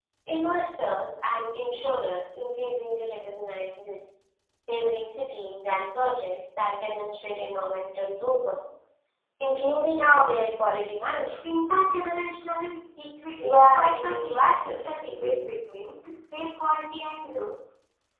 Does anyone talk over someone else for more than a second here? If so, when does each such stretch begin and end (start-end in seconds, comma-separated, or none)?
13.4-15.1